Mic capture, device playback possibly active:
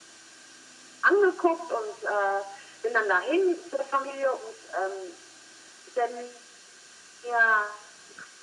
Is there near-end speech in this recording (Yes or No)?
No